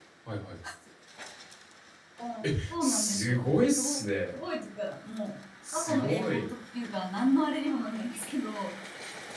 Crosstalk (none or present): present